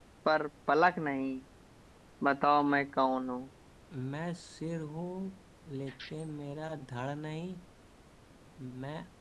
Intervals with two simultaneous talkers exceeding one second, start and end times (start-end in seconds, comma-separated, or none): none